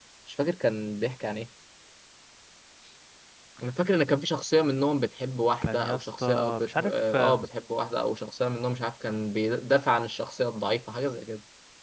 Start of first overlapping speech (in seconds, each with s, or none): 5.6 s